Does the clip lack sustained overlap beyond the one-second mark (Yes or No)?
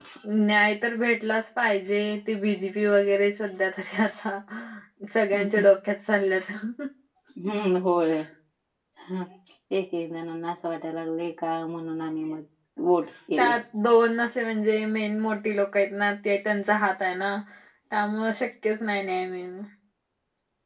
Yes